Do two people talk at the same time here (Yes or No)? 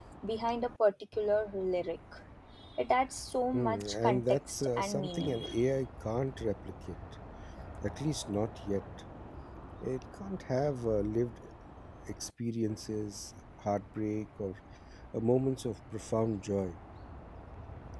Yes